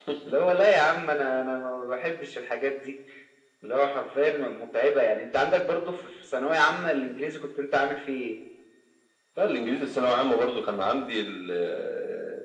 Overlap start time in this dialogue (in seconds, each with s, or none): none